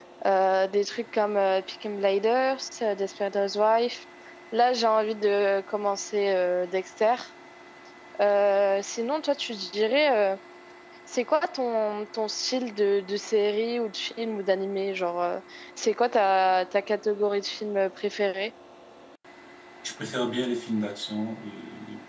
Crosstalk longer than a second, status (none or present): none